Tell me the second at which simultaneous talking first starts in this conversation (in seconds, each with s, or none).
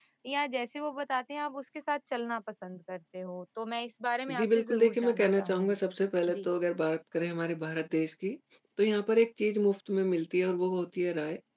4.3 s